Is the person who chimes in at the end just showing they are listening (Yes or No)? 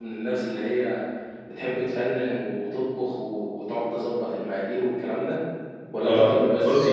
No